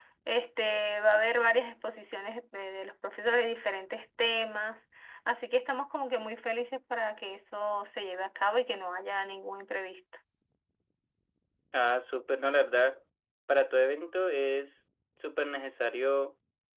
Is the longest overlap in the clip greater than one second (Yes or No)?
No